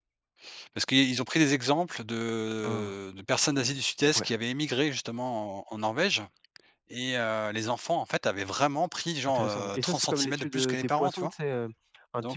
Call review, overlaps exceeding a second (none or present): present